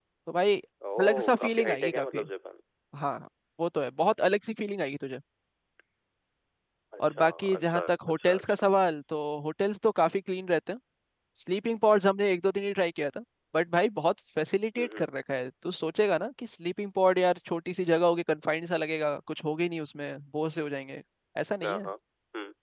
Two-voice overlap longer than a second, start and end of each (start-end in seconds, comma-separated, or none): 1.0-2.2, 7.1-8.6